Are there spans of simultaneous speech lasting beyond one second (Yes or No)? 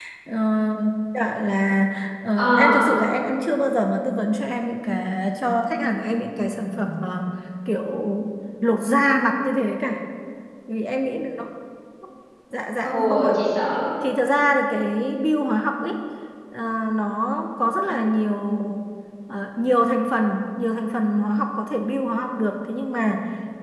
No